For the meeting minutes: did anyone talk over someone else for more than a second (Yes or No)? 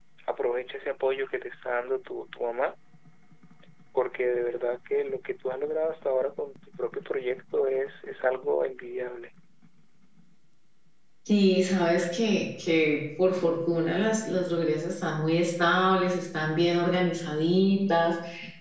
No